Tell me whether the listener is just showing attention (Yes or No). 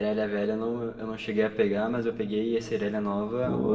No